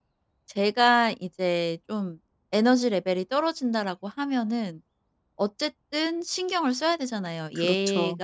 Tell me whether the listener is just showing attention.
Yes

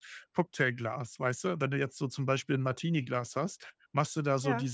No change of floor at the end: Yes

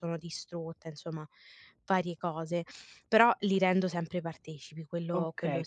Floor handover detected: Yes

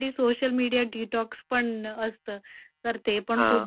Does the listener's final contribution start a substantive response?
No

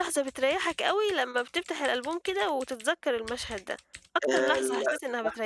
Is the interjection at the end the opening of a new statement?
Yes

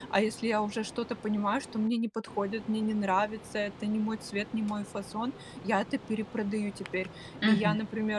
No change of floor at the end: Yes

